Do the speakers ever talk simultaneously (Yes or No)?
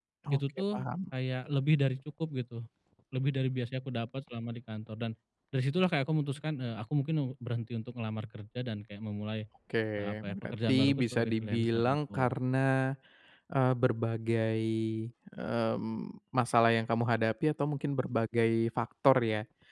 Yes